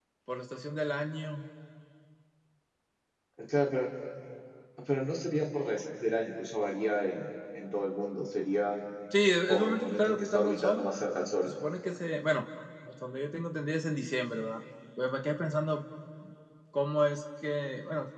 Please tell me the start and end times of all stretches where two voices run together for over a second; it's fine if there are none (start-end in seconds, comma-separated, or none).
9.5-10.9